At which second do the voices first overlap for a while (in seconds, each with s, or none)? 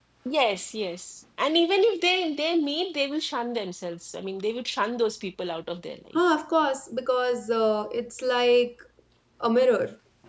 none